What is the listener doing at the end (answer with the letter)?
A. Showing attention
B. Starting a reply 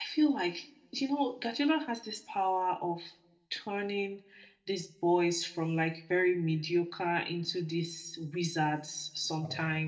B